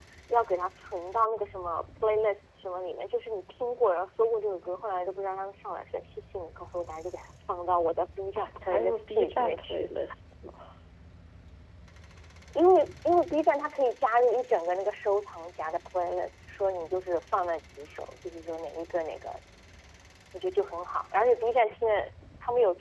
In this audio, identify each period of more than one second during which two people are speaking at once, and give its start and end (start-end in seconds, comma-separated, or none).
8.4-9.9